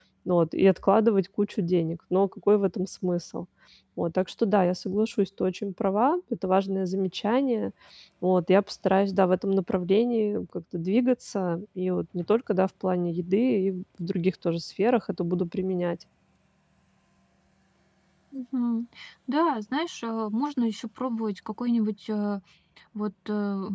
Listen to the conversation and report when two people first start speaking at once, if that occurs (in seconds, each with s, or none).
none